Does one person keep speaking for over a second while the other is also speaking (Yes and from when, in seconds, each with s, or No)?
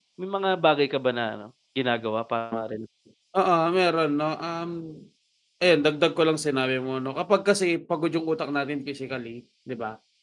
No